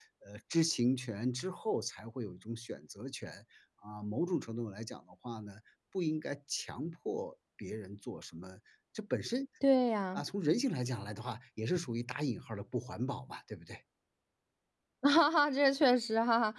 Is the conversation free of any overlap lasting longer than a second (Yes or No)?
Yes